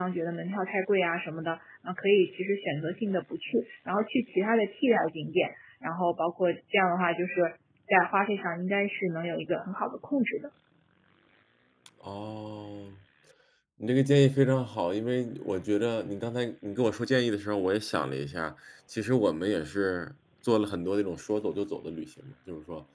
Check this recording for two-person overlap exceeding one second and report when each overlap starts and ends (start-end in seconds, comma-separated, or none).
none